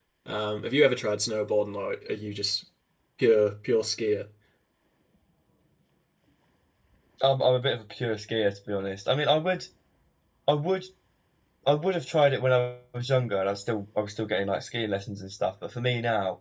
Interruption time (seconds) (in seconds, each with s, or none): none